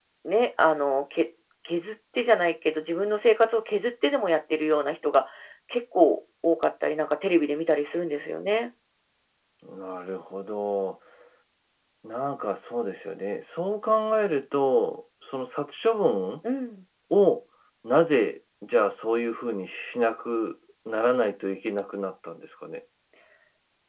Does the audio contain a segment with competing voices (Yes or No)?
No